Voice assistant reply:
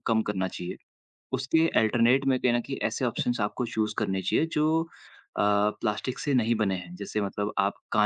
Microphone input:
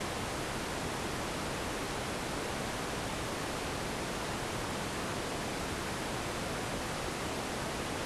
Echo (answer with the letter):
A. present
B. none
B